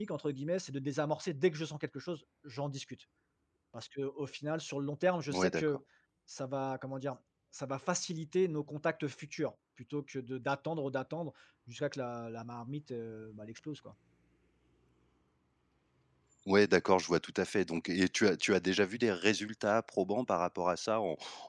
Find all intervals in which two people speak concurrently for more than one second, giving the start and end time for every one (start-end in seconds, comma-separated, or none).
none